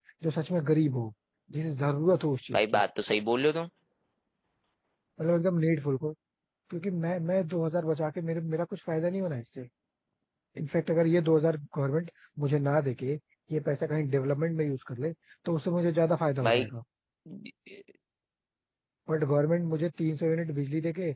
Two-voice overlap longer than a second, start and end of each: none

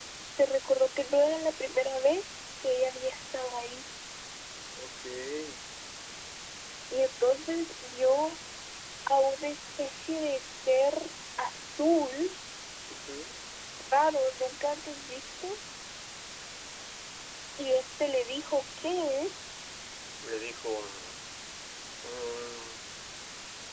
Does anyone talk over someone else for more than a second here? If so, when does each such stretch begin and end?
none

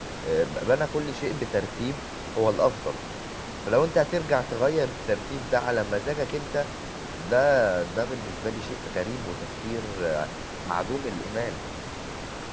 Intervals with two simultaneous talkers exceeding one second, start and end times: none

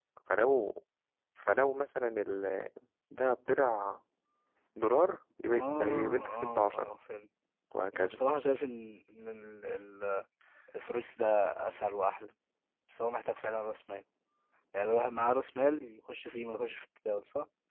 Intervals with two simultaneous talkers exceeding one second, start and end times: 5.4-6.9

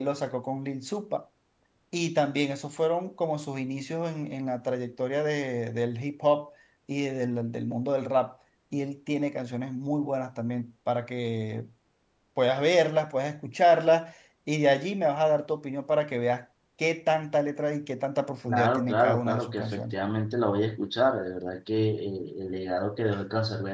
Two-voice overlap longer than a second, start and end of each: 18.5-20.0

